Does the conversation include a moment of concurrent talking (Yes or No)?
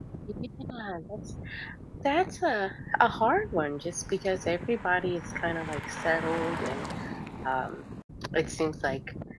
No